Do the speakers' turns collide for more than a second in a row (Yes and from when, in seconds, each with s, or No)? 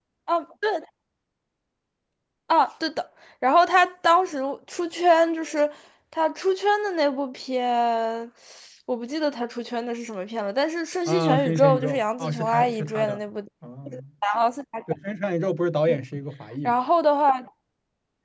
Yes, from 11.1 s